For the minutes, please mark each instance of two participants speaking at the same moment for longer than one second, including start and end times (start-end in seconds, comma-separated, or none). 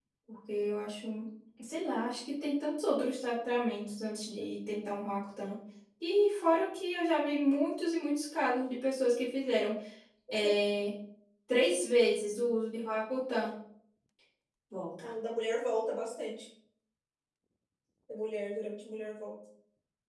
none